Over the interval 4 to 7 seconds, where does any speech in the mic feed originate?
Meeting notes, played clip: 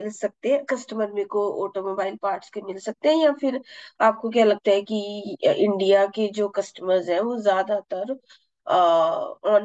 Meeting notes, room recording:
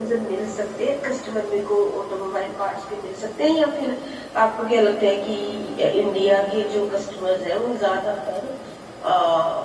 echo only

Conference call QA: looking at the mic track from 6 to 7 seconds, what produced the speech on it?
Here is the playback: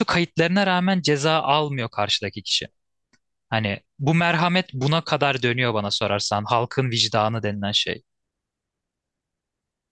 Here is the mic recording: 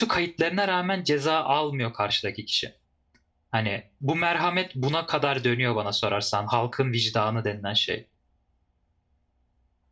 echo only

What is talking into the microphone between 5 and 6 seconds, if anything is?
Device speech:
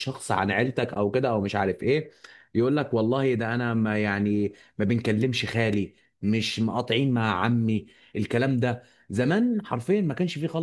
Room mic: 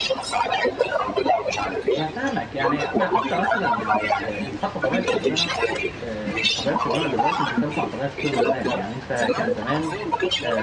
both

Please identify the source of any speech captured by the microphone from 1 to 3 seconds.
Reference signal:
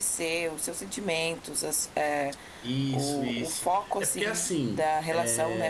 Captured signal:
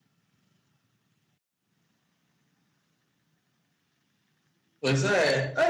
neither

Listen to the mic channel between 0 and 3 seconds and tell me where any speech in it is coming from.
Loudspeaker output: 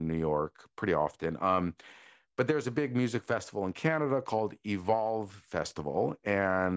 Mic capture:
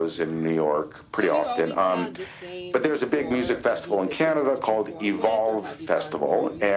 both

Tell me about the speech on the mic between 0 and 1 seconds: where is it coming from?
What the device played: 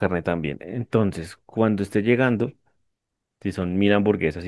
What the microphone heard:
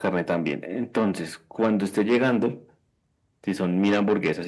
echo only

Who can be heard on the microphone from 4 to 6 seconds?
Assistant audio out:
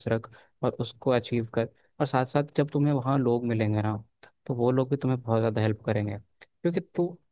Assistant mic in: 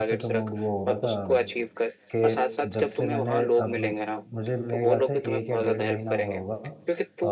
both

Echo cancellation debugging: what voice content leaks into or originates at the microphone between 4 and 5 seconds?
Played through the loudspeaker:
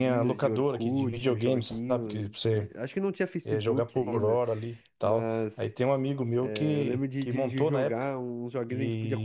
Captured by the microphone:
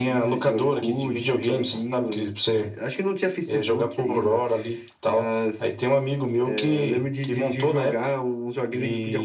echo only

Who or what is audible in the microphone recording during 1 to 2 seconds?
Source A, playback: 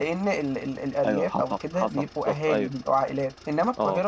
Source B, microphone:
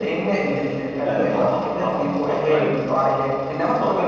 echo only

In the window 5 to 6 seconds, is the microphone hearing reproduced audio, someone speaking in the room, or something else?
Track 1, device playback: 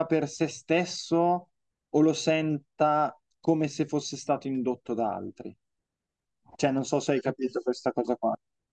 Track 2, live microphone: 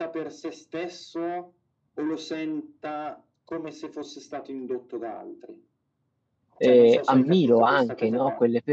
echo only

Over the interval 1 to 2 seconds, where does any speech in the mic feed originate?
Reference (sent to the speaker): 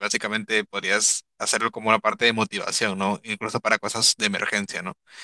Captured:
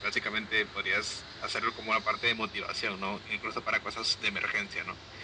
echo only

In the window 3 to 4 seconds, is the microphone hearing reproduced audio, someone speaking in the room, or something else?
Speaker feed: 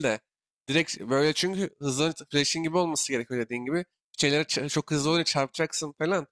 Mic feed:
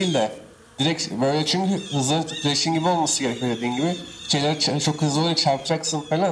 echo only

